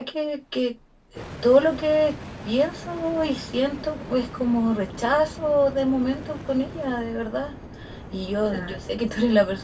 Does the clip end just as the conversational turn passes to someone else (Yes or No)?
No